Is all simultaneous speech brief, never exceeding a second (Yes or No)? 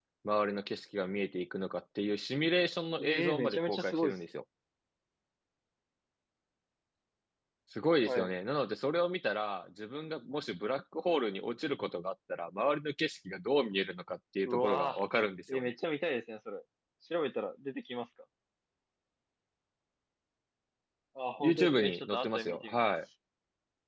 No